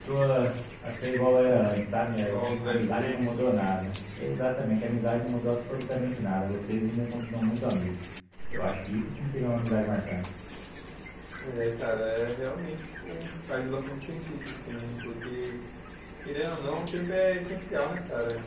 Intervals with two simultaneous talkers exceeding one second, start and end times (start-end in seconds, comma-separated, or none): 2.1-3.4